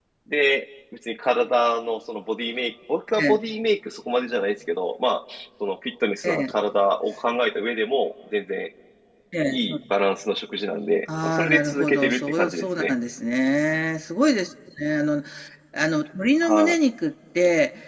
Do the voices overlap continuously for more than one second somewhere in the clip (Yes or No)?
Yes